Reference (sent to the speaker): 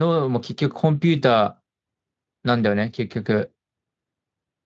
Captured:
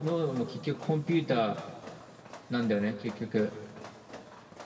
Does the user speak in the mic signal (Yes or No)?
No